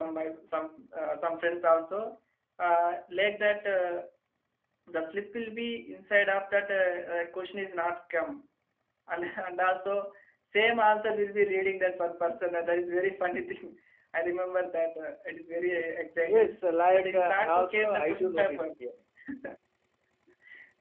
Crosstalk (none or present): present